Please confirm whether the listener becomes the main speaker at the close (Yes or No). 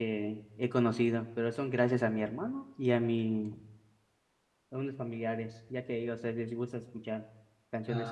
Yes